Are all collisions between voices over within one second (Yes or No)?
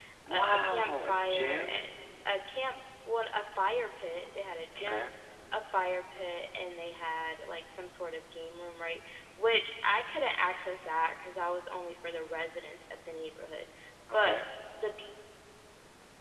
No